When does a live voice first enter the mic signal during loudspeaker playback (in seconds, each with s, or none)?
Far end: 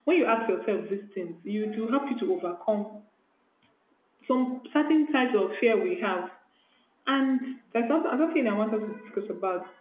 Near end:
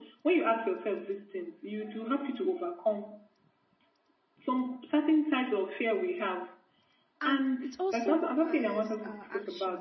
7.2 s